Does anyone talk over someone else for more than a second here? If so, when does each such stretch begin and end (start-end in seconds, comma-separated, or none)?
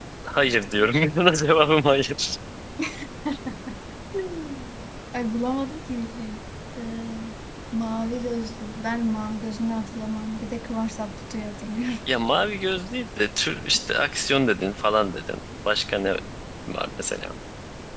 none